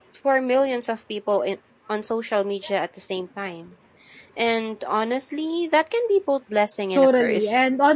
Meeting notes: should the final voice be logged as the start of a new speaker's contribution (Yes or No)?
Yes